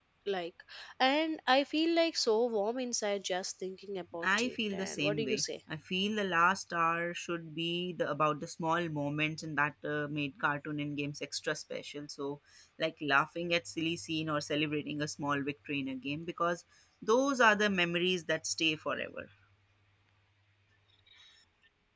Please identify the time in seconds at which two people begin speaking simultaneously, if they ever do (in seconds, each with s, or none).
4.2 s